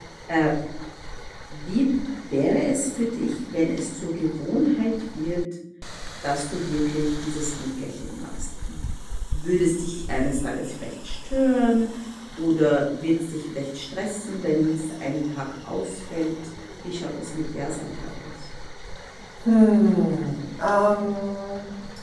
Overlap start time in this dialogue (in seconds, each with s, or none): none